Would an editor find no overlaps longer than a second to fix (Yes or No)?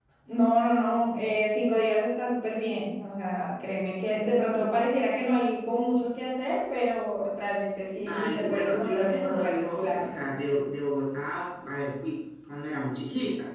No